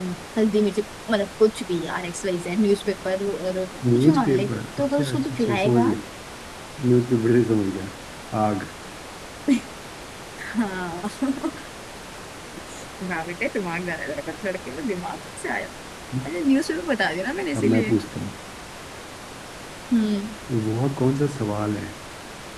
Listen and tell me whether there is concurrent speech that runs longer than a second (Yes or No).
Yes